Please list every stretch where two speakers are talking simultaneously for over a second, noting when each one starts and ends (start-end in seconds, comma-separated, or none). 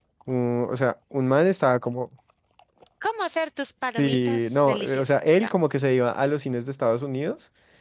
4.0-5.5